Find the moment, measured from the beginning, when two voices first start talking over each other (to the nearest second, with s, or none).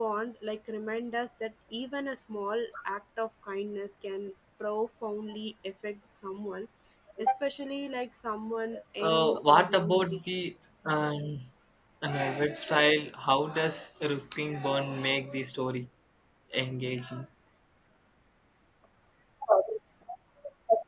9 s